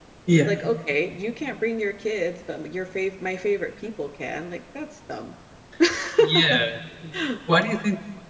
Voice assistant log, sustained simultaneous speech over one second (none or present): none